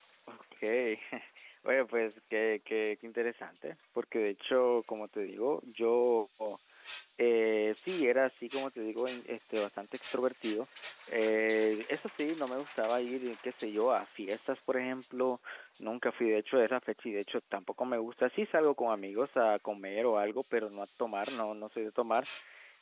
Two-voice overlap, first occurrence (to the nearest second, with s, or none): none